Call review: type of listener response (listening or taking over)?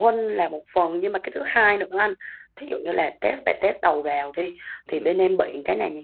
listening